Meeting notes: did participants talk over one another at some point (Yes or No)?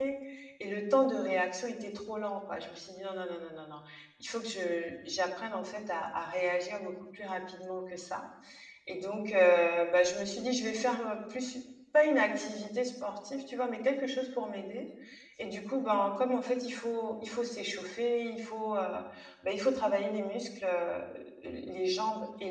No